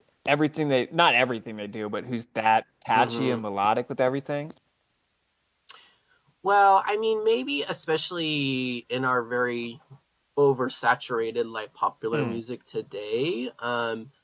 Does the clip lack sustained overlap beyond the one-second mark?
Yes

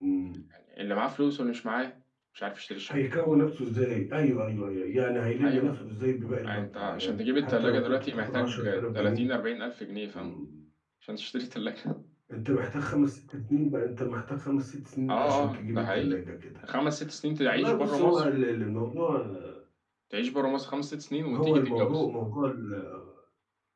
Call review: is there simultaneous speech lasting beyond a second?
Yes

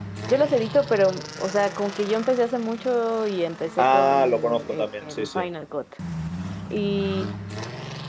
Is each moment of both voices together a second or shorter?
No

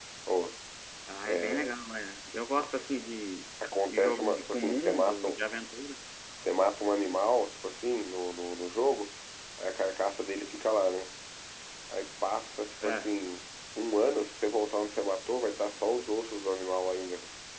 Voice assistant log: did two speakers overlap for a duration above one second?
Yes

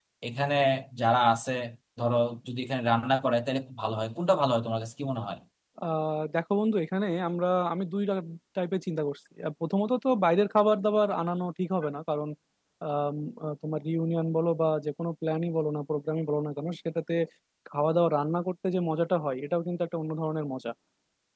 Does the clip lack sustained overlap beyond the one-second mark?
Yes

